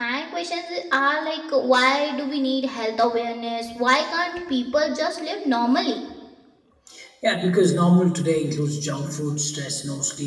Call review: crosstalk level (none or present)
none